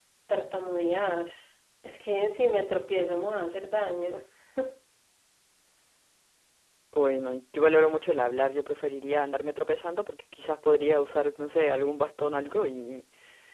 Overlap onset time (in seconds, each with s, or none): none